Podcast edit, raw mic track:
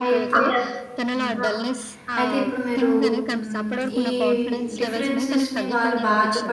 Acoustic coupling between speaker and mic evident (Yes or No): Yes